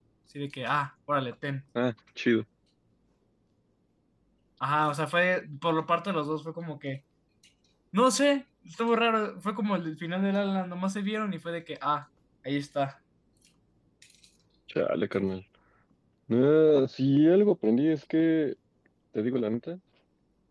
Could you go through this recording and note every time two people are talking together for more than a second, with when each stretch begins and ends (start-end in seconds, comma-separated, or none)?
none